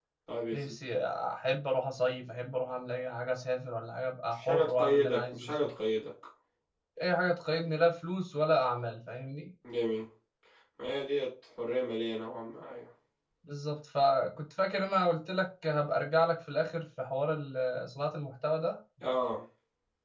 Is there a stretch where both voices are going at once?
Yes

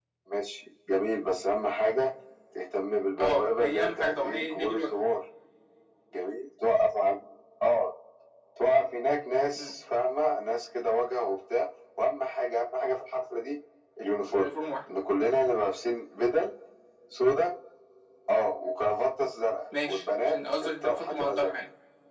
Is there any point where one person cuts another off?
Yes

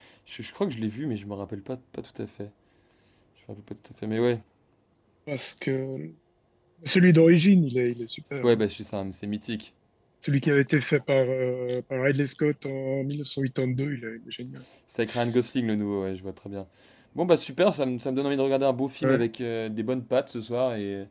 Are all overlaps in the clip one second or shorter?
Yes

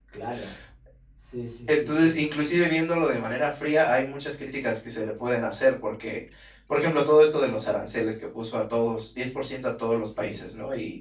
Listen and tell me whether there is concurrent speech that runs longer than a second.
No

